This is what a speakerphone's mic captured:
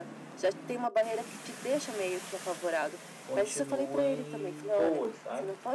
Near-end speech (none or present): present